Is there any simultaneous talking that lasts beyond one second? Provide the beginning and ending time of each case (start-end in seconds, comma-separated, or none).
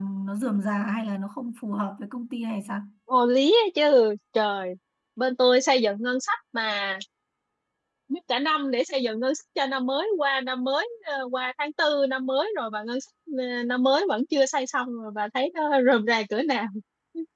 none